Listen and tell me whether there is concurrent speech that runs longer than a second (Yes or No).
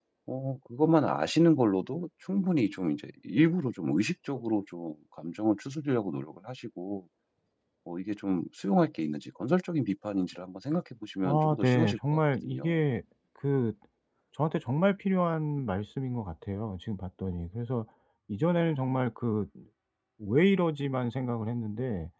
Yes